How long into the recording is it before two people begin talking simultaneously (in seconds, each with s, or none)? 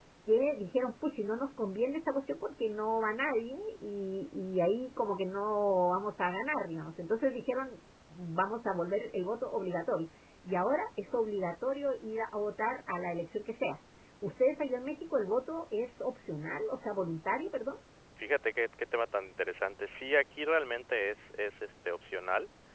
none